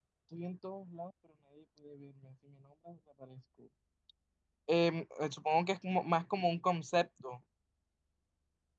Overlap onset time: none

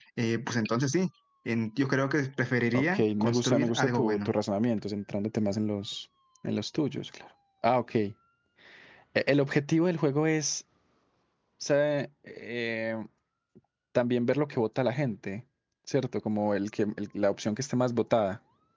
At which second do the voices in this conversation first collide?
2.7 s

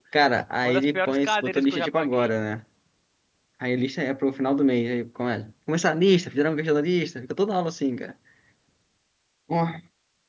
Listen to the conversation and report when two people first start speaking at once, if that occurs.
0.6 s

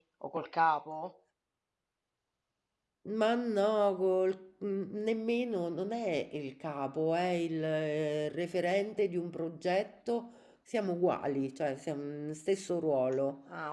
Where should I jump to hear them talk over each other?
none

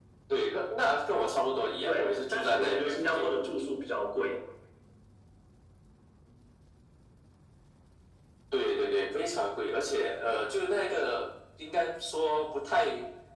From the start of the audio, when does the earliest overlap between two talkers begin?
1.8 s

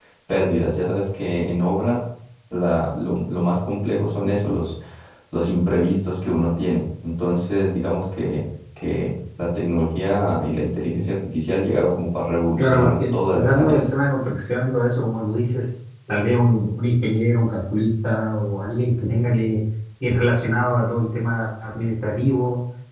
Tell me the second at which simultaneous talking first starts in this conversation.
12.6 s

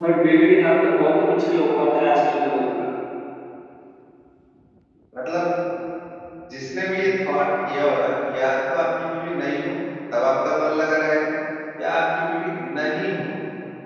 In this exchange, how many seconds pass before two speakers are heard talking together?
none

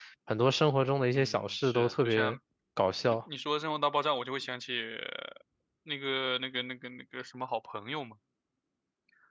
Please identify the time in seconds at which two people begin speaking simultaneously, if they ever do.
1.1 s

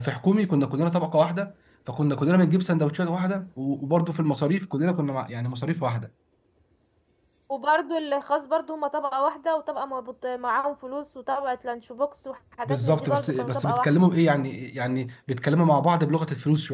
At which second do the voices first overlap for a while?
12.7 s

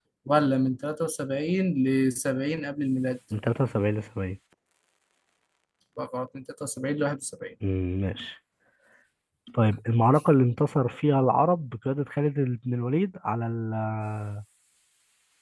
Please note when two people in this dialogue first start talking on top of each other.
none

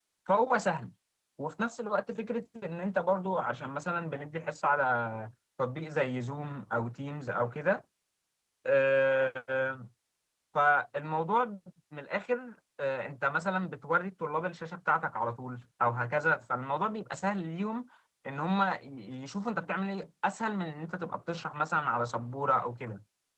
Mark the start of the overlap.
none

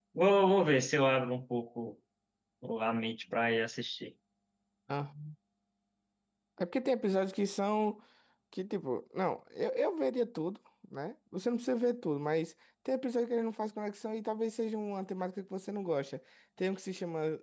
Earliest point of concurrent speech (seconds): none

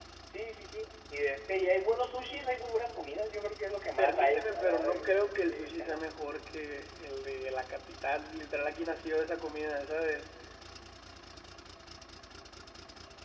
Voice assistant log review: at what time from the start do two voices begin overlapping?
4.0 s

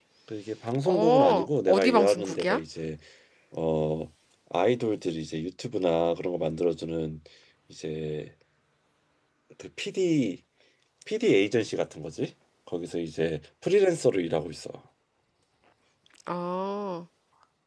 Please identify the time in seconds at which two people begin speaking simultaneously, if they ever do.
0.9 s

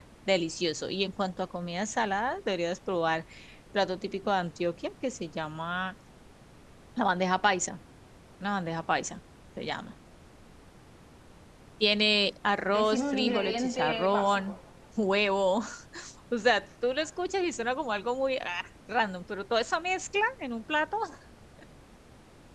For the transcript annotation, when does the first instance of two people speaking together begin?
12.7 s

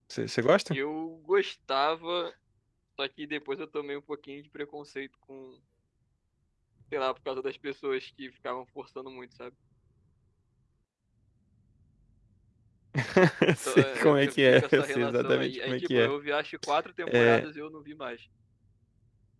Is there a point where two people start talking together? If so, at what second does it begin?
13.7 s

